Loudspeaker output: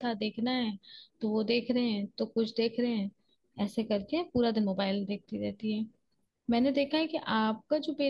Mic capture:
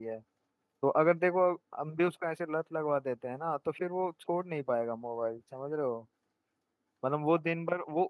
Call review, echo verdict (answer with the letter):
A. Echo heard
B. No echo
B